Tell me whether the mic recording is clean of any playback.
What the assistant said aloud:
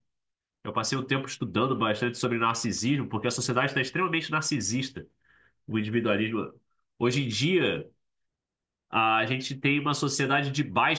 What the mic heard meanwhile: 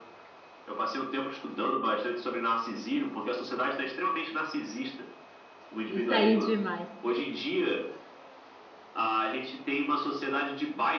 No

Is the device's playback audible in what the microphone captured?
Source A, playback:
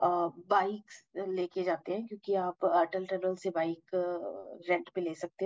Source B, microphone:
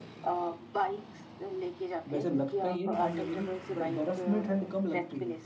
Yes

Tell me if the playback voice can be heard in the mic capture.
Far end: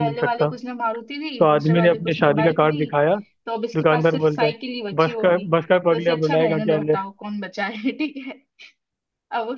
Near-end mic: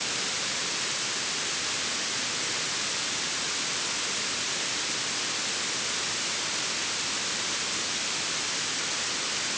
No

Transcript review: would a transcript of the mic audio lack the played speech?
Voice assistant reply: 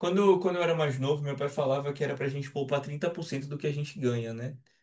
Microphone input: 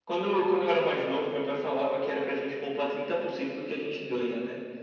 No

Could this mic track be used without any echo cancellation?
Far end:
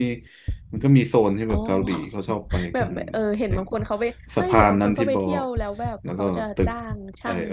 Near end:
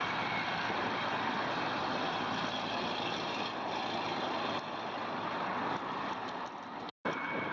Yes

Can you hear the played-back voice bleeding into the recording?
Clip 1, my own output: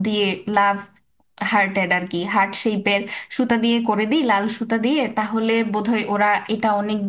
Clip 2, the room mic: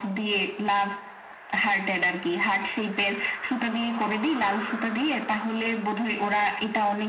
Yes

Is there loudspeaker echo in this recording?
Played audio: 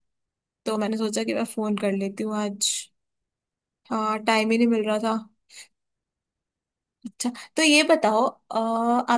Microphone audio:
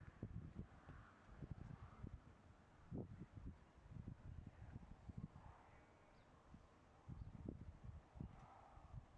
No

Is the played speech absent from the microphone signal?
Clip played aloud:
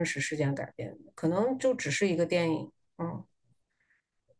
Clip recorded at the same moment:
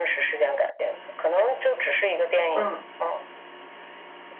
No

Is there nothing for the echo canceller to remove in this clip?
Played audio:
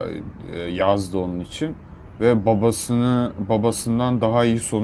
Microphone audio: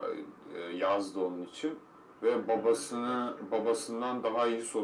No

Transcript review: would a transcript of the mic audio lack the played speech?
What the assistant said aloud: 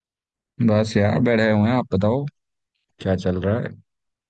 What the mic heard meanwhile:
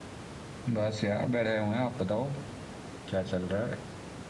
No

